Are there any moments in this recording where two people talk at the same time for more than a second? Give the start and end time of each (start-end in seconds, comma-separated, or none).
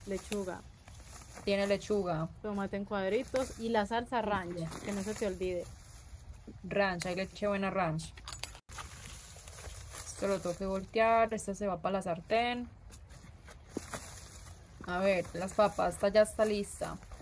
none